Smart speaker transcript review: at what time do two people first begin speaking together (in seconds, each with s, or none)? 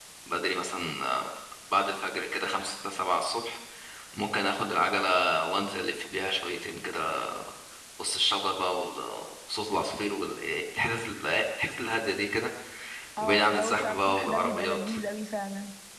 13.2 s